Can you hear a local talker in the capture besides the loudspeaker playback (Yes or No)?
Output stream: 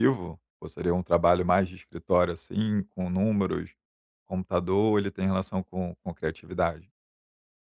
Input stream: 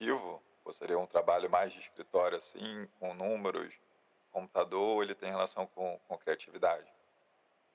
No